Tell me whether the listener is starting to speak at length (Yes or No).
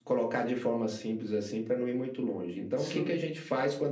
No